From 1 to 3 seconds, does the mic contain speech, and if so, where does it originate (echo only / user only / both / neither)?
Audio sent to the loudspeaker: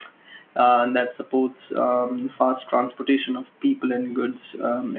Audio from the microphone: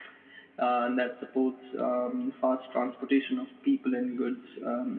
echo only